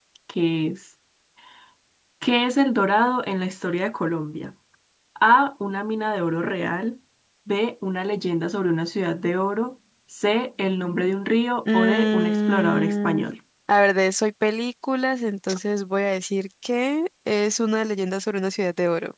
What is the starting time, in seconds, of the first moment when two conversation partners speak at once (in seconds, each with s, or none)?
11.6 s